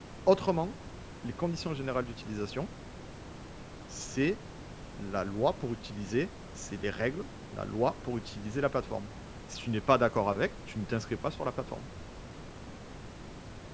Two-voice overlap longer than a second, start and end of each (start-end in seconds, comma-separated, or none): none